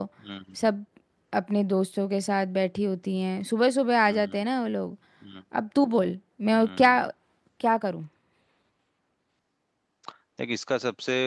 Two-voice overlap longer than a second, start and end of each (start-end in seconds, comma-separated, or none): none